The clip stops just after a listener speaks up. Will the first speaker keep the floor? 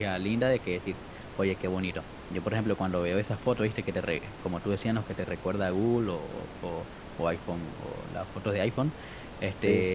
Yes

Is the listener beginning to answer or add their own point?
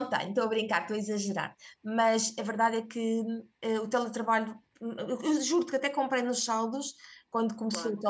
No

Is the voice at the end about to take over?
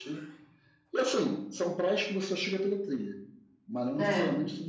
No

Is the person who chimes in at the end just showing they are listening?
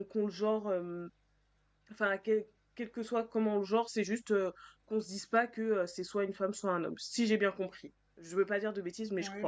No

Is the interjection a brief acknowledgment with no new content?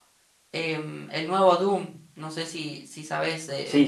No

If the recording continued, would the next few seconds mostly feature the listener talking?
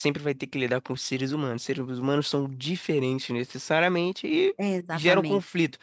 No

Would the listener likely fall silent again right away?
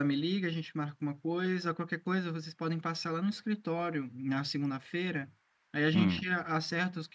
Yes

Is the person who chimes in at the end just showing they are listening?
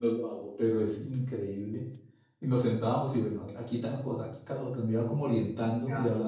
Yes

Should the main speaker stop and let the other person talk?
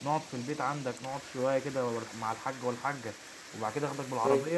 No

